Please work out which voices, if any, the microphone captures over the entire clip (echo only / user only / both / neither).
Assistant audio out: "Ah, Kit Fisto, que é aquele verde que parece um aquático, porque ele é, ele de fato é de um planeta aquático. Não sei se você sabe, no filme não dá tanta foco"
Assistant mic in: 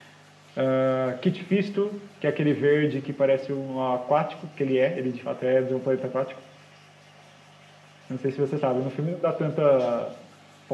echo only